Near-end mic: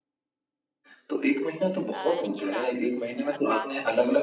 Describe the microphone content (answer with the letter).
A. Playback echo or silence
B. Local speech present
B